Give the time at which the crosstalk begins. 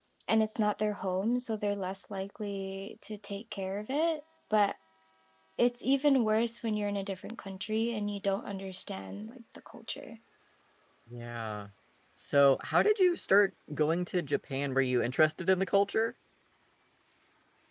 none

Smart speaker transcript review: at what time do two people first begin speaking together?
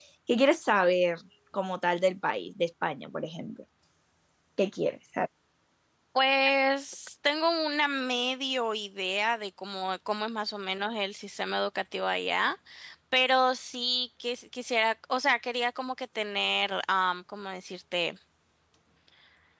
none

